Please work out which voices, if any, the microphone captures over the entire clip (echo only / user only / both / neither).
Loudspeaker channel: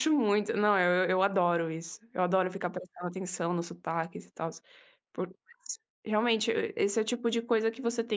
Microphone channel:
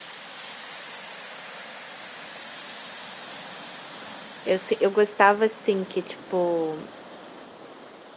user only